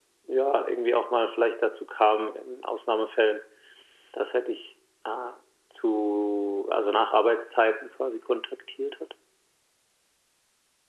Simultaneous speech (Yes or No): No